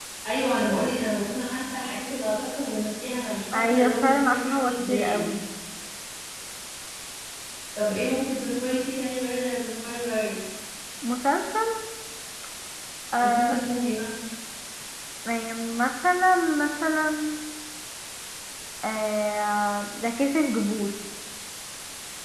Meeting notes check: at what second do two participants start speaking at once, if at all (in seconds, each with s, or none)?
3.5 s